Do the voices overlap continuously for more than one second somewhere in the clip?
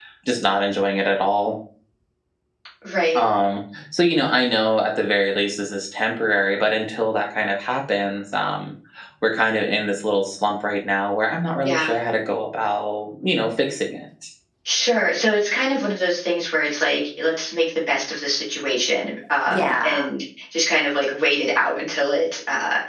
No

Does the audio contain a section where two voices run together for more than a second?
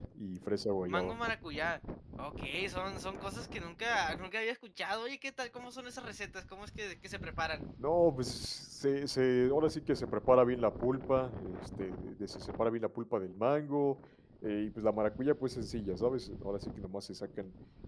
No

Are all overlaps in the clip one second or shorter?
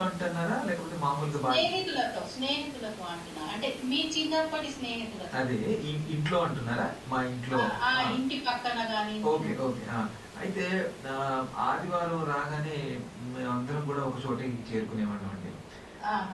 Yes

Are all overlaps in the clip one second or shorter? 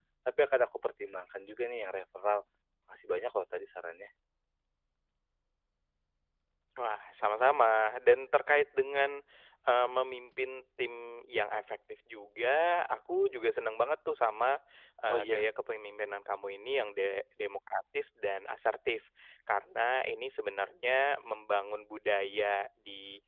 Yes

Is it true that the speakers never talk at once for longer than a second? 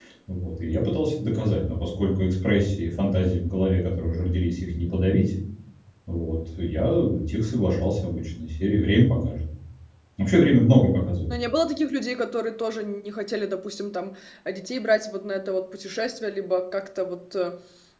Yes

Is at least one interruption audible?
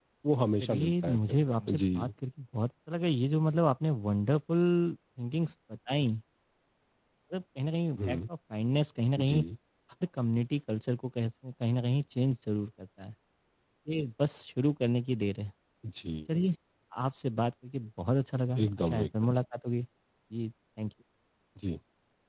Yes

